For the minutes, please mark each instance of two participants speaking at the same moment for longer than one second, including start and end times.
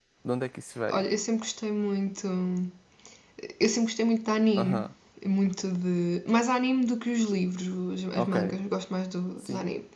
none

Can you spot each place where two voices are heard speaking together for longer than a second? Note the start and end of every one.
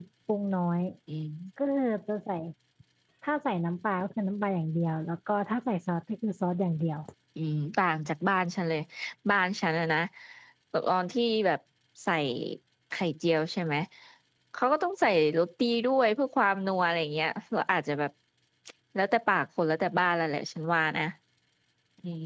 none

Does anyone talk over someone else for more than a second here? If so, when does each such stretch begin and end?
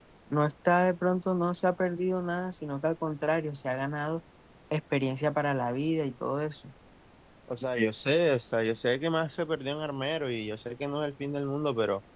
none

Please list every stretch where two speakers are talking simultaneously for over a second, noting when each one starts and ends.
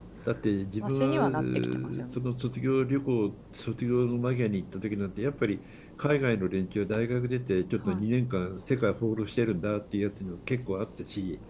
0.8-2.2

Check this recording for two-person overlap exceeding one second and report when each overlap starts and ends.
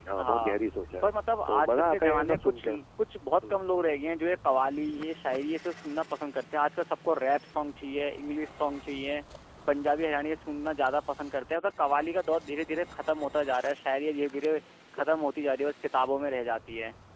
1.4-2.7

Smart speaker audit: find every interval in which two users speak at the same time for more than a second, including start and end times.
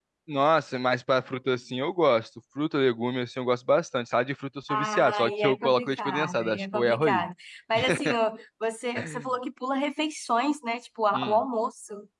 4.7-7.2

